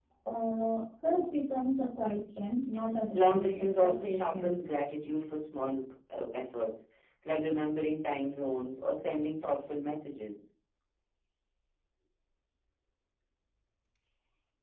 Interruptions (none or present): present